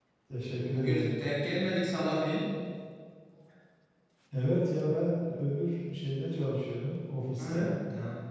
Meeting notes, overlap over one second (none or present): none